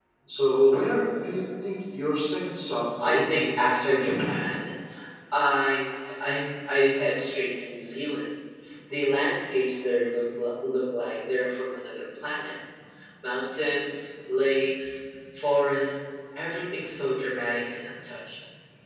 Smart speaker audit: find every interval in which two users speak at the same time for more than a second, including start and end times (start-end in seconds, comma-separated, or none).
3.0-4.4